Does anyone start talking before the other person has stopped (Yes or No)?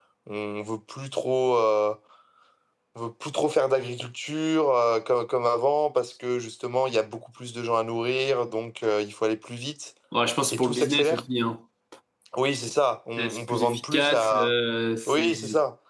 Yes